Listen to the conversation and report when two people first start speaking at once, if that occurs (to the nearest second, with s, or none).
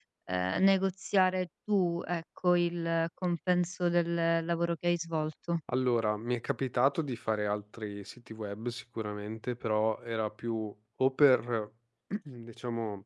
none